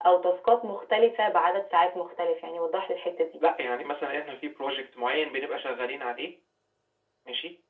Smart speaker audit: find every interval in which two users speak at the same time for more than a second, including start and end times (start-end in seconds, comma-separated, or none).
none